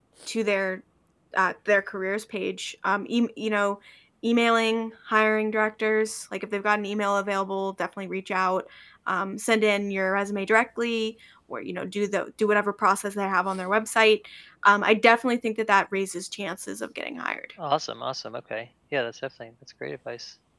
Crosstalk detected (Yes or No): No